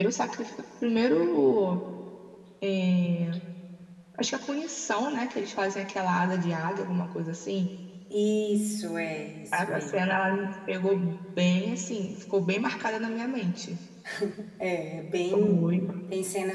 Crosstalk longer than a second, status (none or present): none